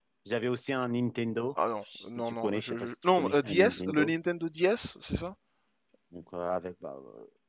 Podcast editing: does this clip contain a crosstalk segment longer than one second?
Yes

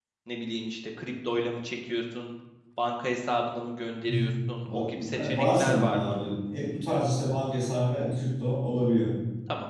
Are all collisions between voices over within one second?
No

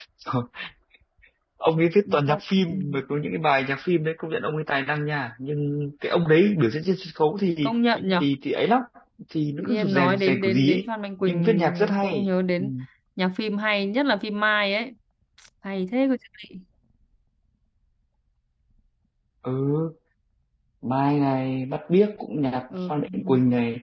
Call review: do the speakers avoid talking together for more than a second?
No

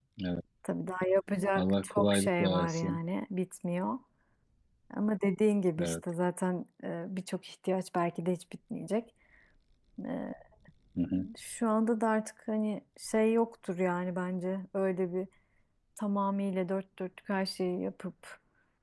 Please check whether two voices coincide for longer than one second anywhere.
Yes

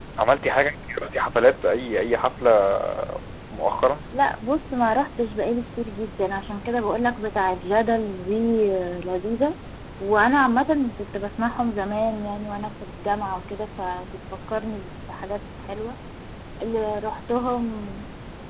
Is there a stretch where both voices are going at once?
No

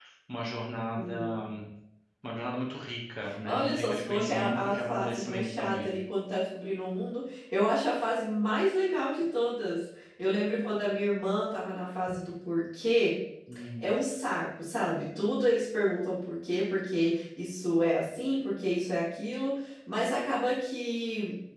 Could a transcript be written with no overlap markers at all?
No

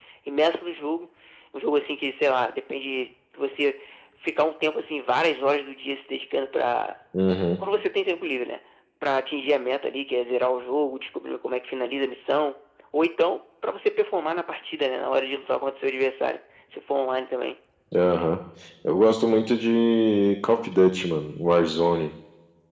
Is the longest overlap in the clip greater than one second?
No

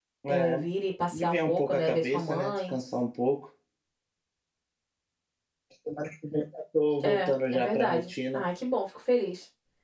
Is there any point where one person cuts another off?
Yes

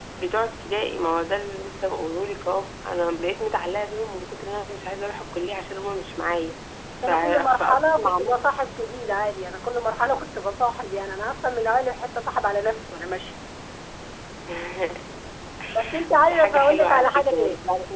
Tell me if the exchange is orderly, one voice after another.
No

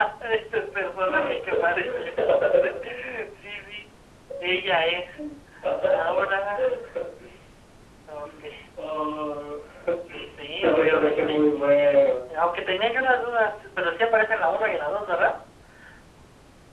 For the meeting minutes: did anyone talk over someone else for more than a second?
Yes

